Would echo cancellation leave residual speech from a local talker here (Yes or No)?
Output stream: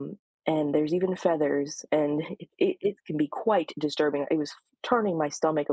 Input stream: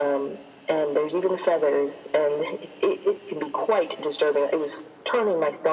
No